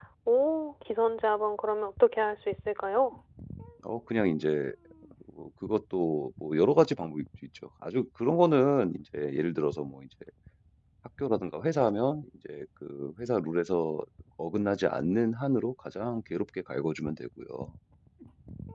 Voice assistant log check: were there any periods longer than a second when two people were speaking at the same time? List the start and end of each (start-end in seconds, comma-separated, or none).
none